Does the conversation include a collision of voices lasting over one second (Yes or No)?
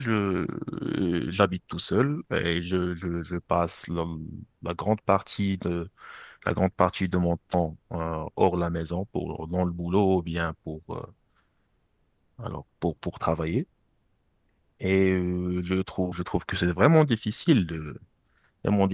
No